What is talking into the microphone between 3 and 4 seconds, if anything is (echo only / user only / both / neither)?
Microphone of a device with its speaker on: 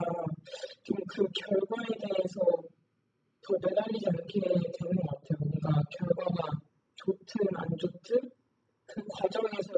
echo only